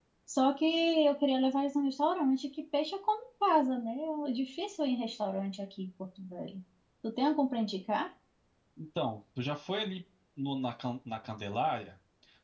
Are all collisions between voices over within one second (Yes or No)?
Yes